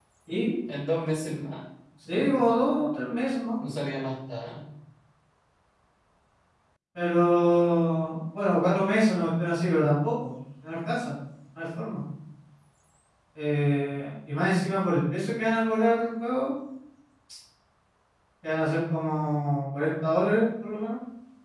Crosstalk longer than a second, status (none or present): none